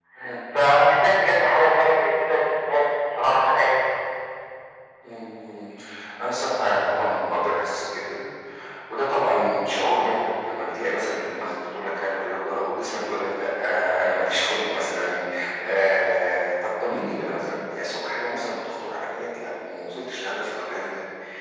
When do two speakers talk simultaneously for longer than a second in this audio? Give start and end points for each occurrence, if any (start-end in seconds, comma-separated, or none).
none